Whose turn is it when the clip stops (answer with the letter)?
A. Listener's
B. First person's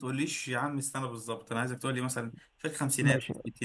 A